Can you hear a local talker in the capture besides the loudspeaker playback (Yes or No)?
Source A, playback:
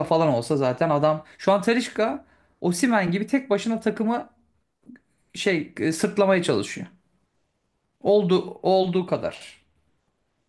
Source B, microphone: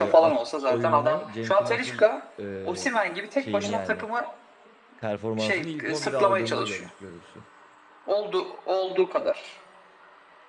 Yes